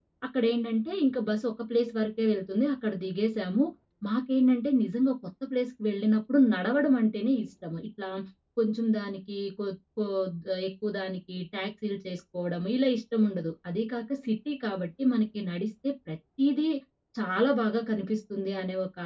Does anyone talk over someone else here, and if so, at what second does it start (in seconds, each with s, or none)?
none